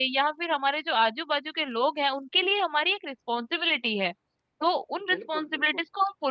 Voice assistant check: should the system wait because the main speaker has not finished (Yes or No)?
Yes